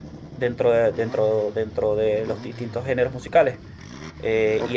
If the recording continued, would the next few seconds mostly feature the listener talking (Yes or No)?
Yes